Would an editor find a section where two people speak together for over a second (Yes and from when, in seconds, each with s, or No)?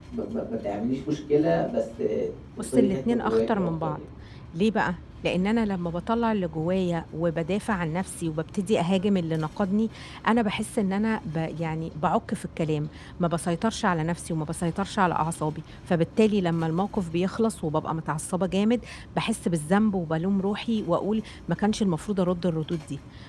Yes, from 2.6 s